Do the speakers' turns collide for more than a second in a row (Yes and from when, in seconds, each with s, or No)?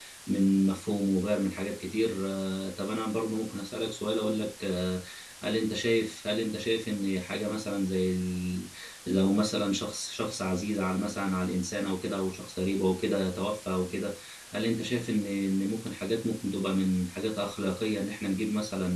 No